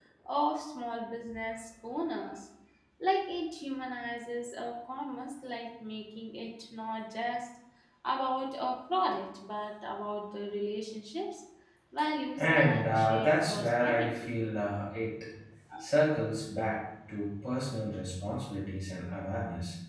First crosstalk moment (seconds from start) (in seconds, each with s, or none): 12.4 s